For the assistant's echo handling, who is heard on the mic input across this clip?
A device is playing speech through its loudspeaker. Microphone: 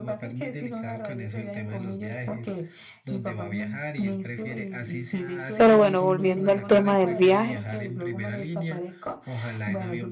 both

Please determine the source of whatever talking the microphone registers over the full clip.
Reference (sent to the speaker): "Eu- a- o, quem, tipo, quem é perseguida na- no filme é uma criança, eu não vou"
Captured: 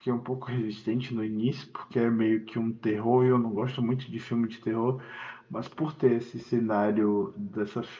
user only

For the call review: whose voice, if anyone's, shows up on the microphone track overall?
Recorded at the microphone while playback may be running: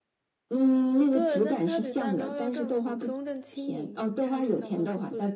both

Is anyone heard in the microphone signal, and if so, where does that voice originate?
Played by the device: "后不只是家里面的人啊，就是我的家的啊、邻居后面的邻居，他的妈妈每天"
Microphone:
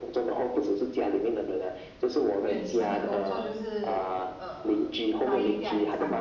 both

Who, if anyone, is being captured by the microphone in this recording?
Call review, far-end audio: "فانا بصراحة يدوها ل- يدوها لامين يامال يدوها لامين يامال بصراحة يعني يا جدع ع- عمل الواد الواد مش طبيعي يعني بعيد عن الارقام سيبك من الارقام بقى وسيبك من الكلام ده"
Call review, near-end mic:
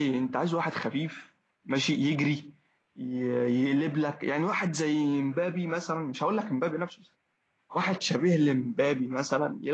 user only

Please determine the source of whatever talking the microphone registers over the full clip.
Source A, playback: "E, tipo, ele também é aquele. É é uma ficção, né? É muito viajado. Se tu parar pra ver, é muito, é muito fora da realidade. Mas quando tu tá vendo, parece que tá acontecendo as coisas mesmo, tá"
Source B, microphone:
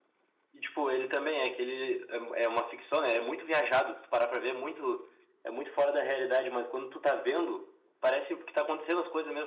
echo only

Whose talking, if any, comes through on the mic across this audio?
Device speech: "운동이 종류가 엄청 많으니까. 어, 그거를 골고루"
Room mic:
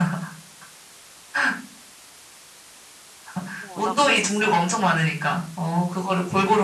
both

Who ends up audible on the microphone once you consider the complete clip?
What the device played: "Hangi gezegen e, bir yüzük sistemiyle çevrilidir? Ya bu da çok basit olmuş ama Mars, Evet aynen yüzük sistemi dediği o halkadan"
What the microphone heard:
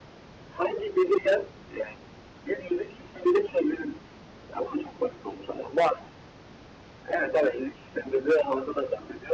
echo only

